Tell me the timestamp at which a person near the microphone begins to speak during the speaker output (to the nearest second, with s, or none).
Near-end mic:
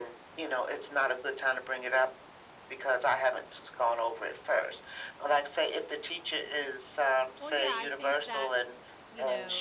7 s